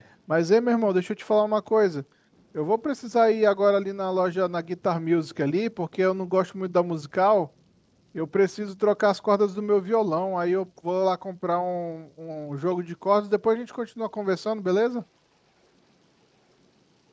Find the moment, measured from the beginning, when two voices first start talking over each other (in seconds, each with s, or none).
none